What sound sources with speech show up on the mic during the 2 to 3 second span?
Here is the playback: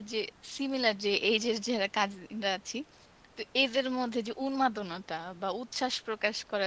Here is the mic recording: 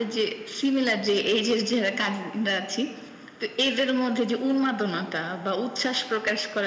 echo only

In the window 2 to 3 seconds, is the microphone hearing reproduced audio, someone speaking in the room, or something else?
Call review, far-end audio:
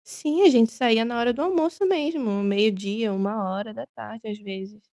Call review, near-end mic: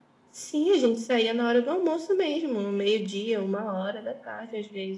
echo only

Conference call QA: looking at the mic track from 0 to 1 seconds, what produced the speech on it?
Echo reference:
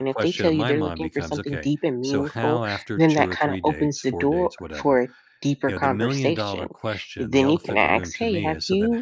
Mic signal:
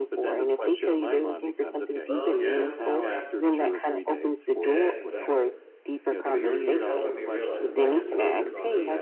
echo only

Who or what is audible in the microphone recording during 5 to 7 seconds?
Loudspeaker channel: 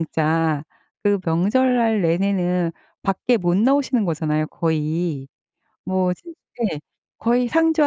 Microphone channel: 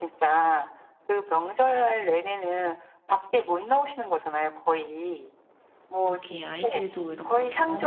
both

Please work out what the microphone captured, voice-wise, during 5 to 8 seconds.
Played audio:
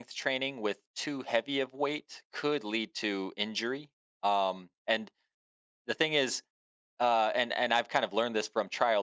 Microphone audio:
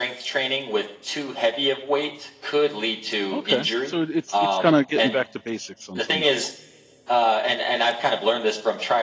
both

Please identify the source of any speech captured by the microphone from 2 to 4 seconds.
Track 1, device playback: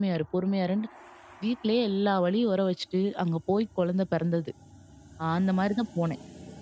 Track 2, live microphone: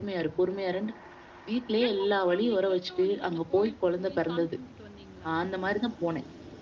both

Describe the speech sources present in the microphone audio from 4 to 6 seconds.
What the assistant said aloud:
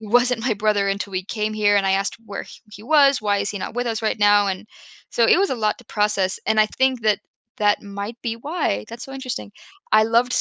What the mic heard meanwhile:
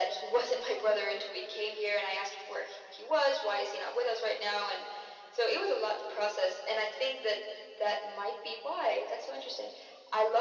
echo only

